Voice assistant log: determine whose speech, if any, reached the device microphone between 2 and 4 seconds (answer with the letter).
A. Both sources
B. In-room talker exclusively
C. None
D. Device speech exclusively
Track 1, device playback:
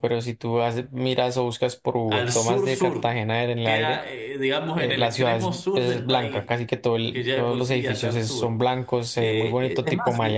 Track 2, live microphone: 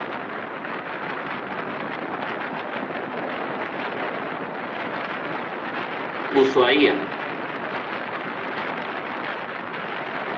C